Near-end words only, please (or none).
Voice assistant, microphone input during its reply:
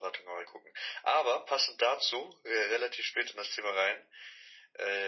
none